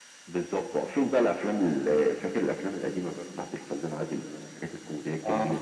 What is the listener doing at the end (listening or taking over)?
taking over